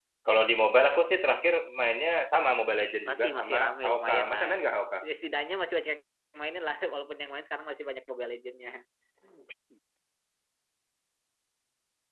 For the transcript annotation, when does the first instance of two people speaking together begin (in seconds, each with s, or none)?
3.1 s